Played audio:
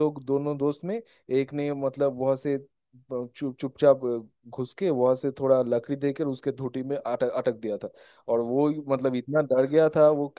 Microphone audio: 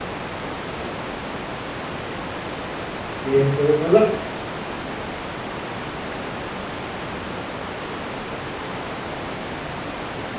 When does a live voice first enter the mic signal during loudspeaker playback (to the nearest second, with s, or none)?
3 s